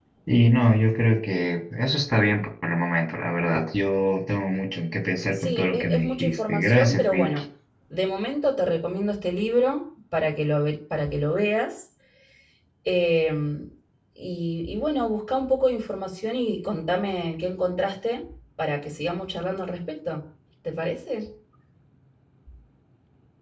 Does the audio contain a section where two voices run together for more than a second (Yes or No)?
Yes